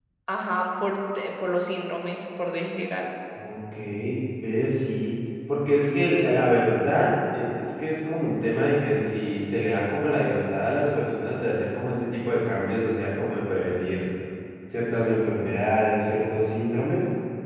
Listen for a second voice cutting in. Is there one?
No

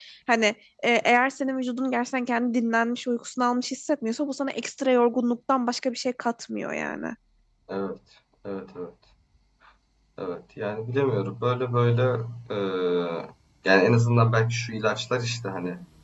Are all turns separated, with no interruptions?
Yes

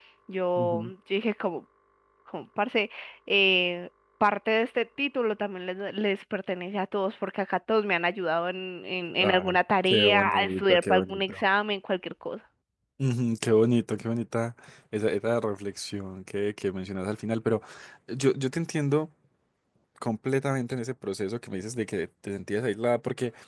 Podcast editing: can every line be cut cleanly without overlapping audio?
No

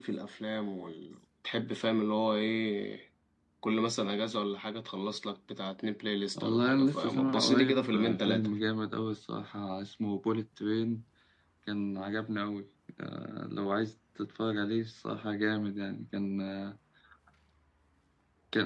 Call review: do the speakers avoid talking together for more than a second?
No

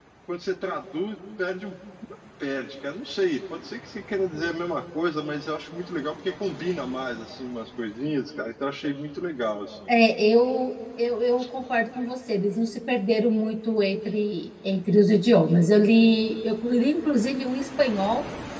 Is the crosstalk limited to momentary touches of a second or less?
Yes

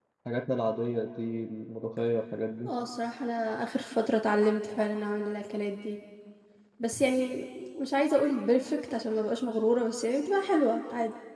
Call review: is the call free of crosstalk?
Yes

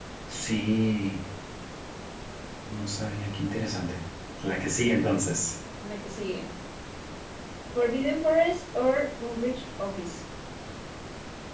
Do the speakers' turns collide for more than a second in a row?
No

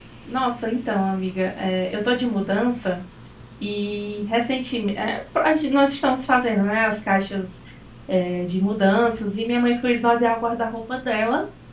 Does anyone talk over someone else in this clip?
No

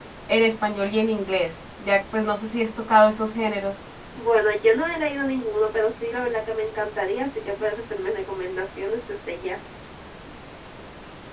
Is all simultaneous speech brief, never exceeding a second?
Yes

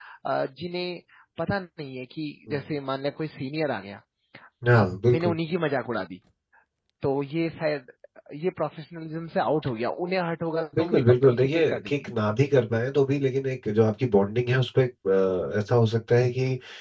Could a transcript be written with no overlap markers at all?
No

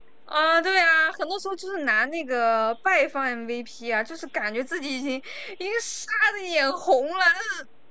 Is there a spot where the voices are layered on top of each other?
No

